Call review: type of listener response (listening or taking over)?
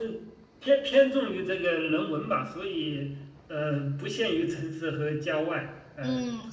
taking over